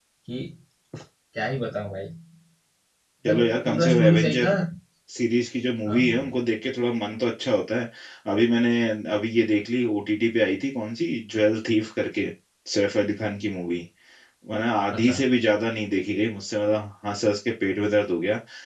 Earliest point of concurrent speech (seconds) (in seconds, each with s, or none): 3.2 s